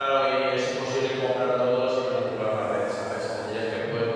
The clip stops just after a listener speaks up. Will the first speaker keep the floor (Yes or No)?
Yes